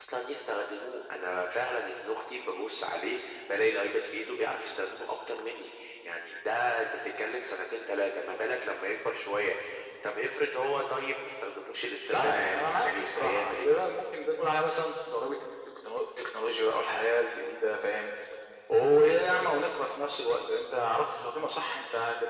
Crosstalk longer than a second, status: present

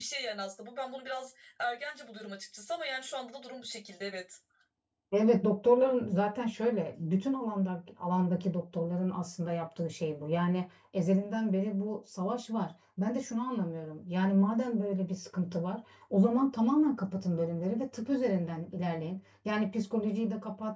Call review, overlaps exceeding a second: none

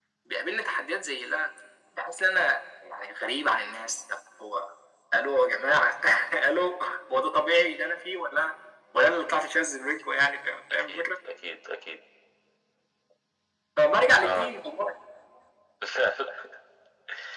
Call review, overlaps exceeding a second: none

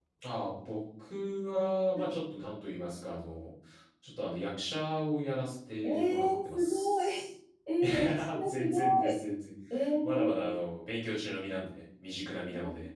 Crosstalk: present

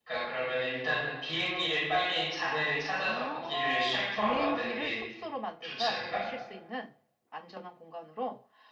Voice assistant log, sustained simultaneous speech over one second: present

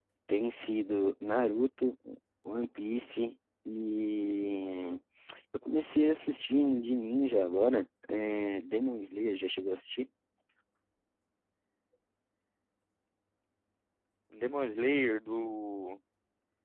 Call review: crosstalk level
none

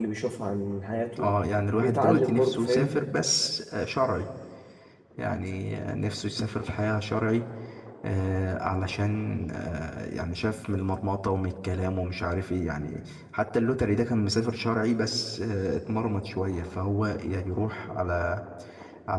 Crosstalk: present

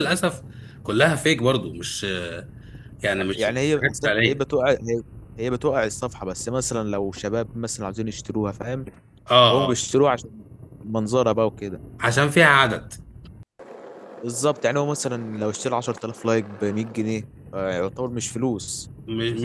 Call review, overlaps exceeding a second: present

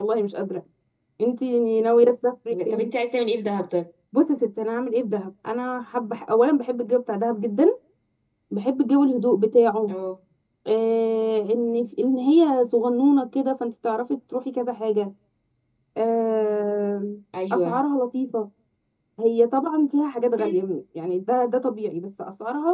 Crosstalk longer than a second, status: none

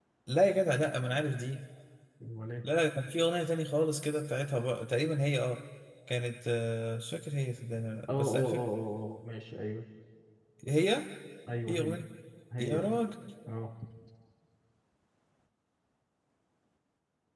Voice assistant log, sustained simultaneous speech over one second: none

